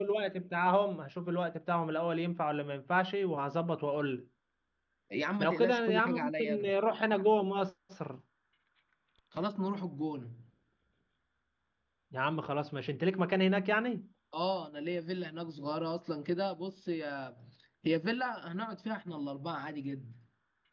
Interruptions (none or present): present